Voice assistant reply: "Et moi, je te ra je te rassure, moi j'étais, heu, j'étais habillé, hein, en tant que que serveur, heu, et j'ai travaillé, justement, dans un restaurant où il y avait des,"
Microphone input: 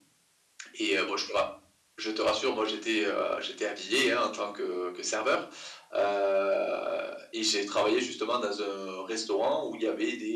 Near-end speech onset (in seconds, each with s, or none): none